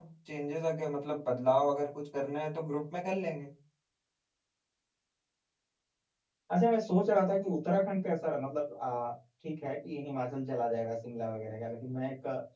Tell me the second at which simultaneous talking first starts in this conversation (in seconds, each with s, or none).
none